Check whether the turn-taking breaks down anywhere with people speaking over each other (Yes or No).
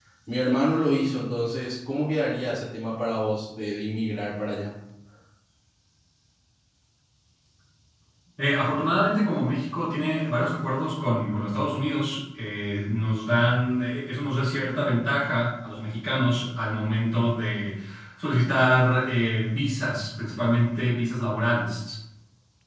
No